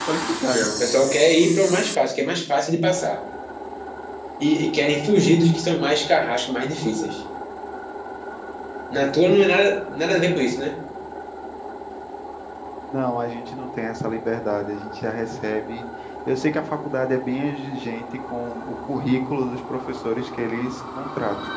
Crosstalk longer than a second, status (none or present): none